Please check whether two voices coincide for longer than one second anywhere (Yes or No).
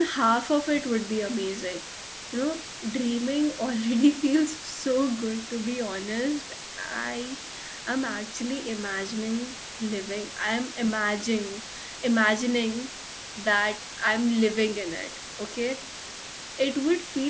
No